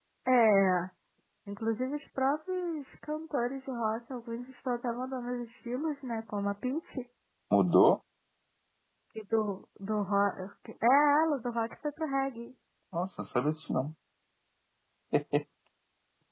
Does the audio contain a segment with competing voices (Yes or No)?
No